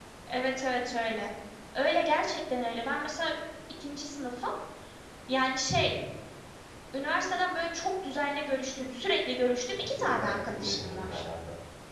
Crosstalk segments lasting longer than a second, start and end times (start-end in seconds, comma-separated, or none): 9.8-11.2